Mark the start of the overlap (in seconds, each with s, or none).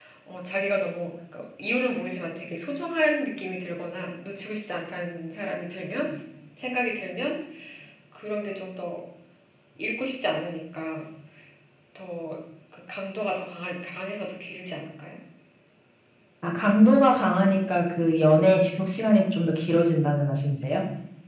none